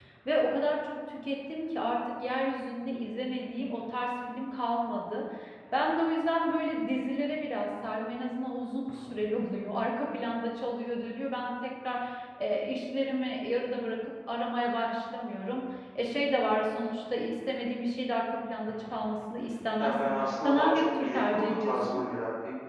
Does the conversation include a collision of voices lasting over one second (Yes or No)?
Yes